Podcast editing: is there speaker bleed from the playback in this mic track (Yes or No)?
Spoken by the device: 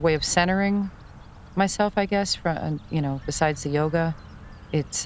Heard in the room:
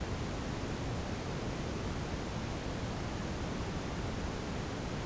No